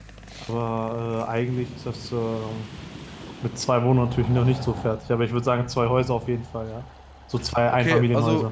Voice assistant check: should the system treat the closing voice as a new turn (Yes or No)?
Yes